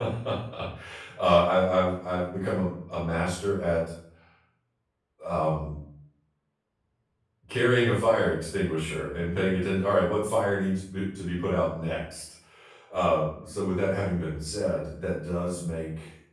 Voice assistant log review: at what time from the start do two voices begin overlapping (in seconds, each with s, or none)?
none